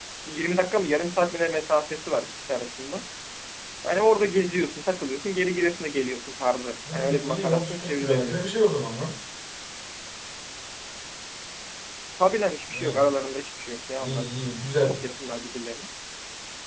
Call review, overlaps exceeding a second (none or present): present